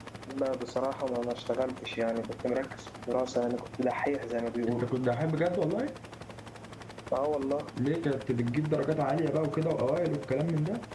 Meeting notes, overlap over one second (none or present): none